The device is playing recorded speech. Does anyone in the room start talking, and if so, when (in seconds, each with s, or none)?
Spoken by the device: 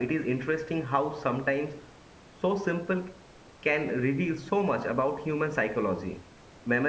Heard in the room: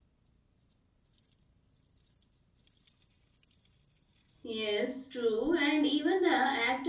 4.4 s